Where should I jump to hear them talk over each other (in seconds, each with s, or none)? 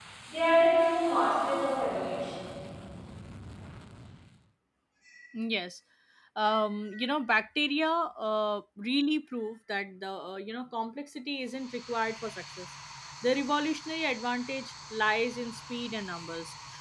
none